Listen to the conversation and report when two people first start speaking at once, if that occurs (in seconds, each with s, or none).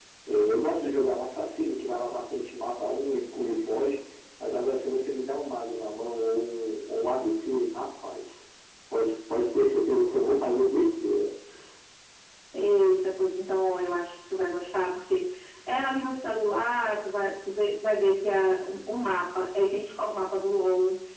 none